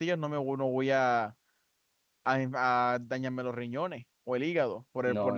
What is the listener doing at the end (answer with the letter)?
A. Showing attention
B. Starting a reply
B